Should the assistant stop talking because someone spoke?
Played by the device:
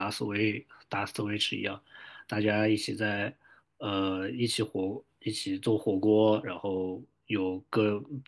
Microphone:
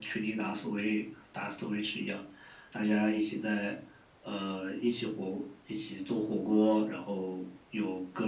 No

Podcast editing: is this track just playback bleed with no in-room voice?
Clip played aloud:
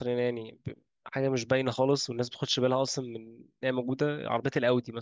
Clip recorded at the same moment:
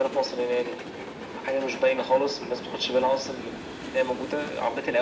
Yes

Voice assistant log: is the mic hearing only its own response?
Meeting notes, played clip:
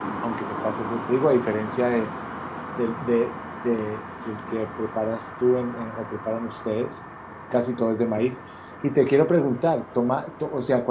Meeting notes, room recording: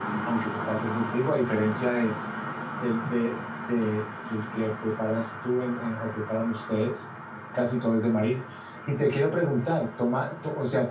Yes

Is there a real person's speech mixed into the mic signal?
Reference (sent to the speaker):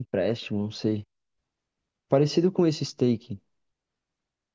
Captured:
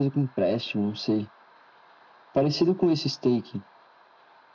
No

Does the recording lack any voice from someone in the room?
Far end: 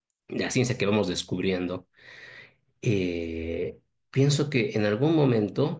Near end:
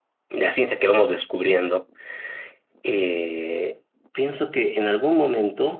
Yes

